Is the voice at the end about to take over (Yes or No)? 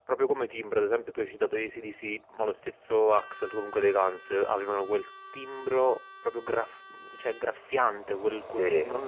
No